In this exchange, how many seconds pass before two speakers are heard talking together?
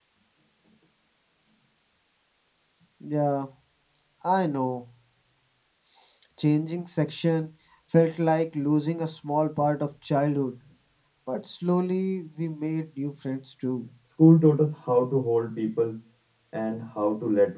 none

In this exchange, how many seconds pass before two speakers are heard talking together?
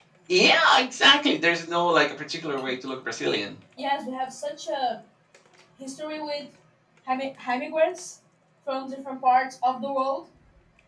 none

